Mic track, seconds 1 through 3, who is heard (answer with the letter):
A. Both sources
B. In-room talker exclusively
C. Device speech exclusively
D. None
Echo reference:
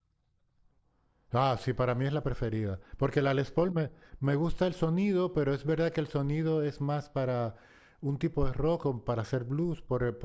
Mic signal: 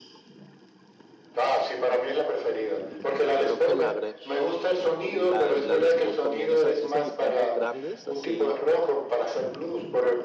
C